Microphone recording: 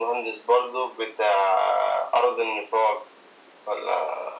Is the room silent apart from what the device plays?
Yes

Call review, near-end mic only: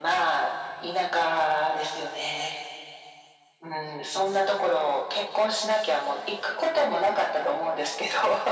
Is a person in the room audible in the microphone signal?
No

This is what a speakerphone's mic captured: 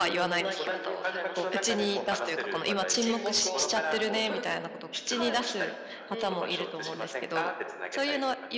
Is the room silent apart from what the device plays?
No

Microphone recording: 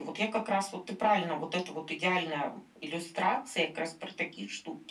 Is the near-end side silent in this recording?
Yes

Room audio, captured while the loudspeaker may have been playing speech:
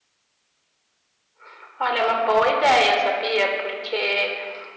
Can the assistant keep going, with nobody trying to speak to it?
Yes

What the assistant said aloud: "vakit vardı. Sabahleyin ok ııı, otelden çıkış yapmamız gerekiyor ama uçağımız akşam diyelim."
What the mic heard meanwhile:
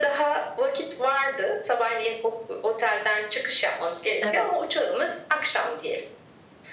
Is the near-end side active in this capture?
Yes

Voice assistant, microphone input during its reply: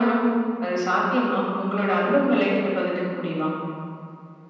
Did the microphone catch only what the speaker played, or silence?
Yes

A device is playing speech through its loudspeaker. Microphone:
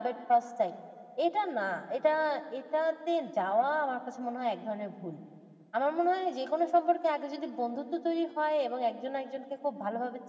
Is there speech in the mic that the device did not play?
No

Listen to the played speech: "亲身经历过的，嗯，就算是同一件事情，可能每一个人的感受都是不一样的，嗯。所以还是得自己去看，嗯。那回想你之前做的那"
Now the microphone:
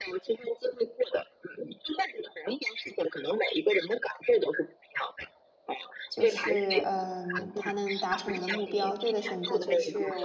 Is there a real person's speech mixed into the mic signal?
Yes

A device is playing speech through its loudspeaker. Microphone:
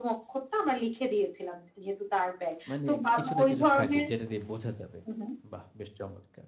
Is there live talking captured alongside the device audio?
Yes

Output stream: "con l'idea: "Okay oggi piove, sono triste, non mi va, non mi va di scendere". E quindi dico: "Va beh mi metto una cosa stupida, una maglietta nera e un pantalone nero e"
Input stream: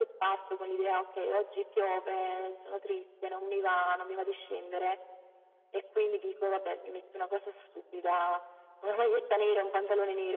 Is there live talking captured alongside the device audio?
No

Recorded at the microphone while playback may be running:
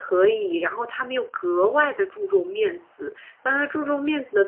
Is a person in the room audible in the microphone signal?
Yes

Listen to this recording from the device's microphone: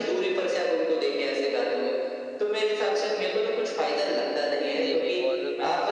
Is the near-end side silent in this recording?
No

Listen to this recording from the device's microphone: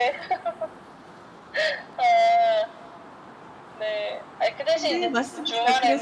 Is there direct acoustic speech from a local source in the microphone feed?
Yes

